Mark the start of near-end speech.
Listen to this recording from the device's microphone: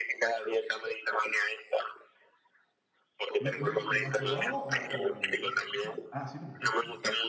3.4 s

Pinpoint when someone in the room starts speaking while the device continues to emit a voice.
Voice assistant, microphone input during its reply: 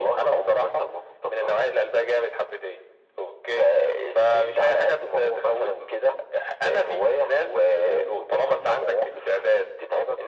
none

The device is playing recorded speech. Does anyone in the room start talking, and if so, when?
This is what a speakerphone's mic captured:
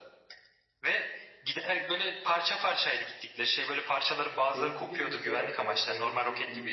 4.4 s

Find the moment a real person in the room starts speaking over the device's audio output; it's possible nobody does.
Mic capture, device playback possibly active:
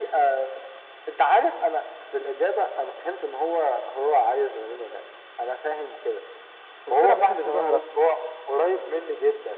6.9 s

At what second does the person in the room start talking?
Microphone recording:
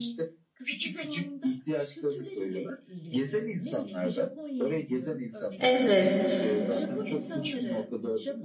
5.6 s

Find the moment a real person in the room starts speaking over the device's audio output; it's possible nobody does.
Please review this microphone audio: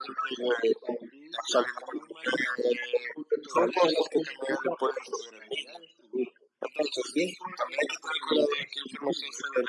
none

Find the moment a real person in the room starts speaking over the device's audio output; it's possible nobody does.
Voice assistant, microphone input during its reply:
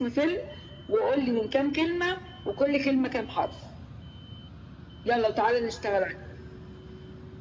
none

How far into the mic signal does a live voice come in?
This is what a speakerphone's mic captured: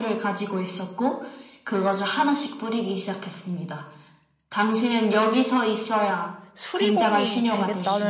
6.5 s

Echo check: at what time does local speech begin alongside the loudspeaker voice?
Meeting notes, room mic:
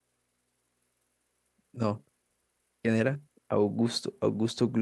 1.7 s

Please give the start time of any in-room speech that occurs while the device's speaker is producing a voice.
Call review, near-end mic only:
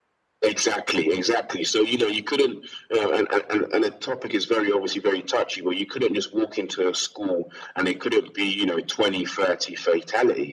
none

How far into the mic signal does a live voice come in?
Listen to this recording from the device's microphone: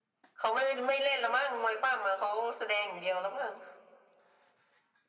none

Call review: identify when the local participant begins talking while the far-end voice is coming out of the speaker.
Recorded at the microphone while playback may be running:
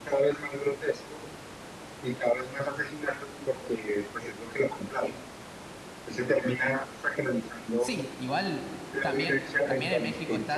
7.8 s

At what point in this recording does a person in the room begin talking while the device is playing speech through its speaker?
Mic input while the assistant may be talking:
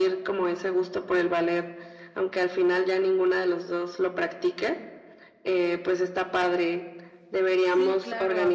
7.6 s

